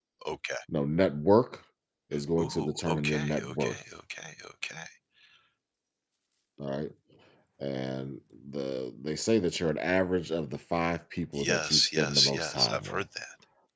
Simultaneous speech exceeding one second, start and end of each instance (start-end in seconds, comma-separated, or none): 2.4-3.8, 11.3-13.0